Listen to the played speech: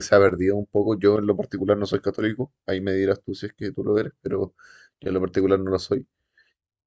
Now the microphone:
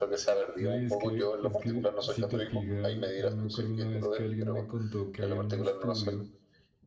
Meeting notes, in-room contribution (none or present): present